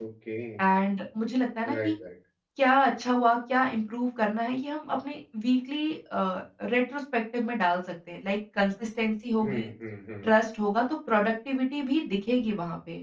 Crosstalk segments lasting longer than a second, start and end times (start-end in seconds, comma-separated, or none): none